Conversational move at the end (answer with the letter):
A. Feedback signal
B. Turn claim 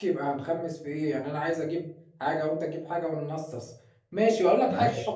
A